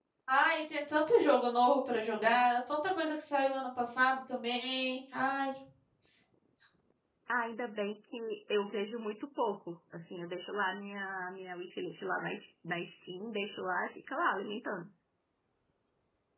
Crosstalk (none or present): none